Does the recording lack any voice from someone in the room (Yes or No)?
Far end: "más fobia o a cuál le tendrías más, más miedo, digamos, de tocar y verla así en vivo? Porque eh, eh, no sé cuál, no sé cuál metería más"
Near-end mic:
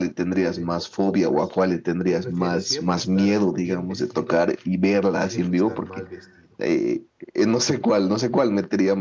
No